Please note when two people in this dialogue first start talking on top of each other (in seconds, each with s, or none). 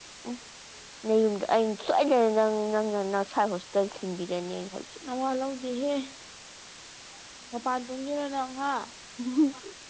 none